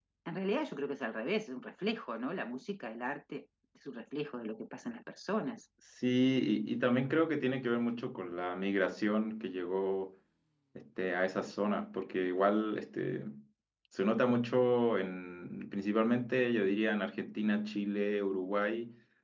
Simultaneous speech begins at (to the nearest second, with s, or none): none